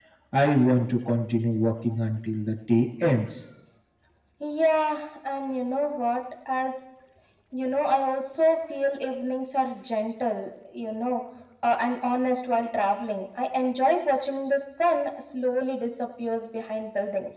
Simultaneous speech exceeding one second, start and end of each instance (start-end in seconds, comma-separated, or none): none